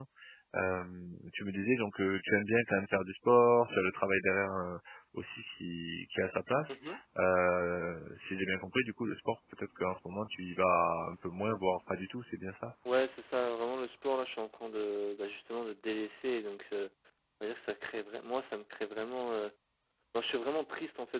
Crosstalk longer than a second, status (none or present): none